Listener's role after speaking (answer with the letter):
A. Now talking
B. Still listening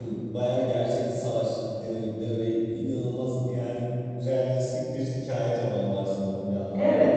A